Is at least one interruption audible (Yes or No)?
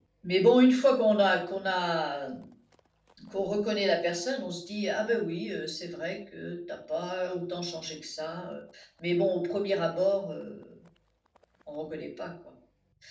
No